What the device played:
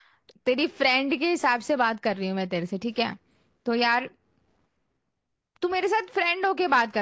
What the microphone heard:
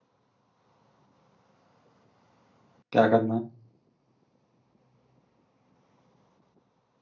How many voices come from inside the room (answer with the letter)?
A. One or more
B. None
A